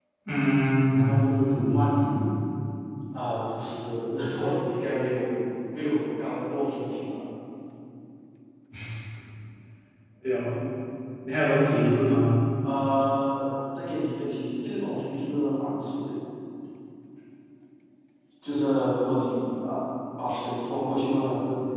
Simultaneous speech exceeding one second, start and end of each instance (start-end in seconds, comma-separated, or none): none